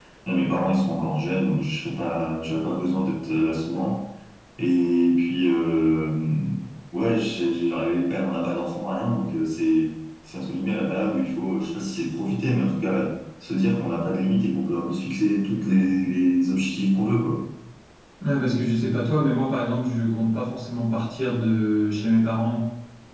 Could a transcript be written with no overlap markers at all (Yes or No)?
Yes